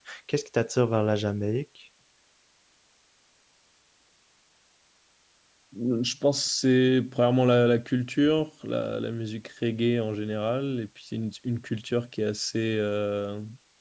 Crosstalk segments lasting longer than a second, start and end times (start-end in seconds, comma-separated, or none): none